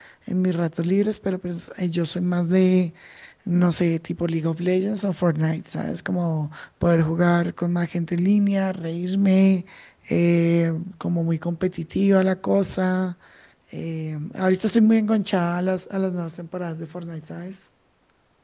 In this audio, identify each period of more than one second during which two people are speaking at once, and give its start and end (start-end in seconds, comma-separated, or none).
none